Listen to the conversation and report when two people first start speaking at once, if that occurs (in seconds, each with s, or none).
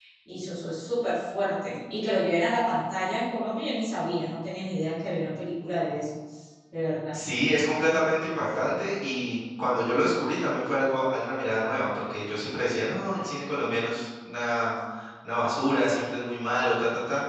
none